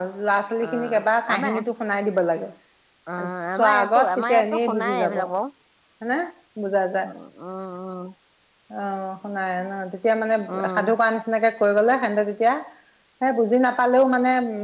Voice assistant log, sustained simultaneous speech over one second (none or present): present